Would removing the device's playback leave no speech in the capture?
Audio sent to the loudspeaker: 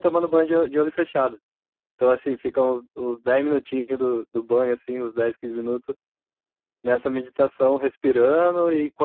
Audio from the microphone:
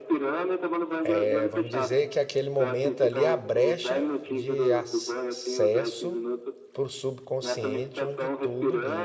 No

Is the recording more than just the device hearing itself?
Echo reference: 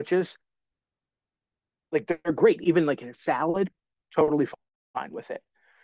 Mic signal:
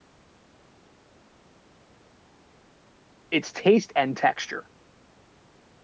Yes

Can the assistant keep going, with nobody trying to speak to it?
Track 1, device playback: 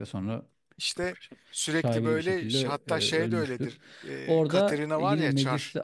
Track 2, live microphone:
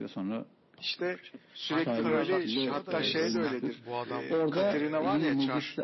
No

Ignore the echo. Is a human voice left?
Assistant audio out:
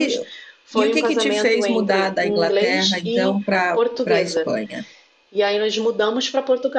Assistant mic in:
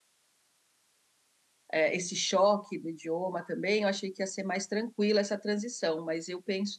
Yes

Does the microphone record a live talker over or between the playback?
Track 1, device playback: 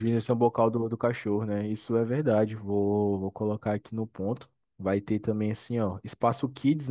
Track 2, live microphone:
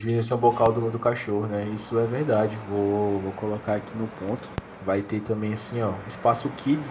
No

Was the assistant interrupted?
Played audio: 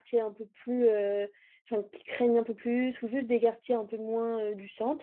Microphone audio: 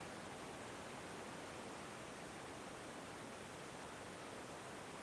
No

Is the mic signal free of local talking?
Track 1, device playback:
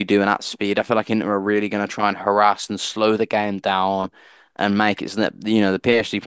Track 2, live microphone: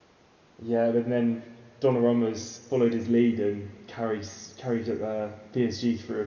No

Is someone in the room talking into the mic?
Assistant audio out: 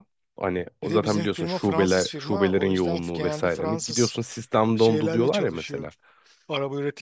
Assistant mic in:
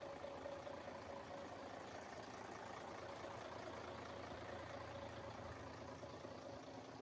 No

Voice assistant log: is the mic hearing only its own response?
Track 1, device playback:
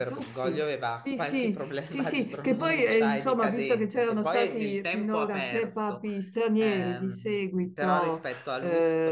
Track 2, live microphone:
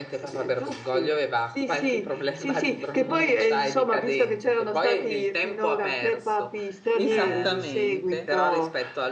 No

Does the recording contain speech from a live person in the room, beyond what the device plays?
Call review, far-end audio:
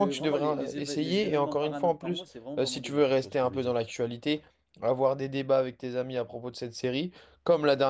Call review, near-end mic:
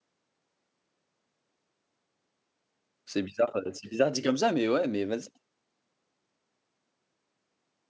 Yes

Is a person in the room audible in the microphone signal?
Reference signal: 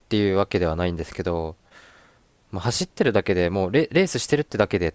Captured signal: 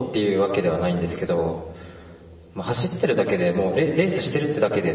No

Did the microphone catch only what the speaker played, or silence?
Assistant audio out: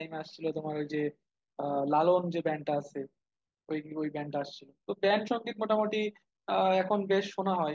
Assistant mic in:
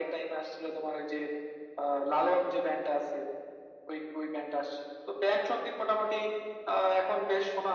Yes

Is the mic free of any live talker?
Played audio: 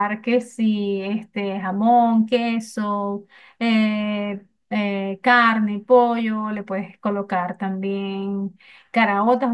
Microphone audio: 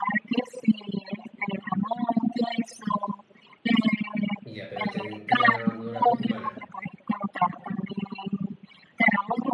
No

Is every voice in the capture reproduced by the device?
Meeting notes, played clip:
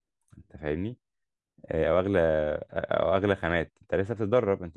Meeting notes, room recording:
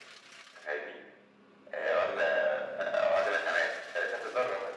Yes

